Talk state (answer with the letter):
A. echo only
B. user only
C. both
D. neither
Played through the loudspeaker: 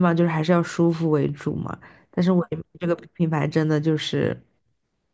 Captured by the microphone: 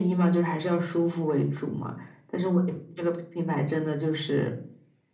A